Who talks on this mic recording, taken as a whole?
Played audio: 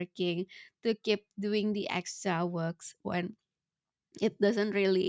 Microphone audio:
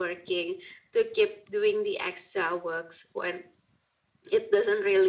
echo only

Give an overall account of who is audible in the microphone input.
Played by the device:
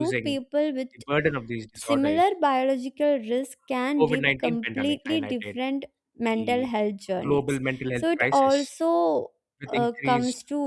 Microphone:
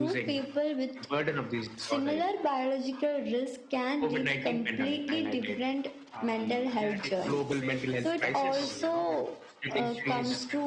both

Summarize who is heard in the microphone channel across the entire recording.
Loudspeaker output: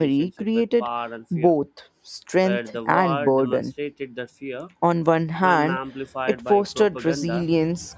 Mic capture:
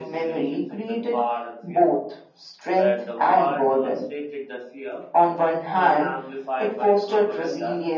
echo only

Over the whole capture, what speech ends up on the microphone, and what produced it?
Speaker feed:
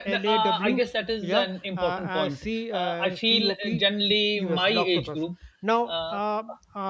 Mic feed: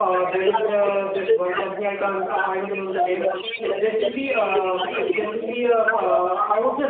both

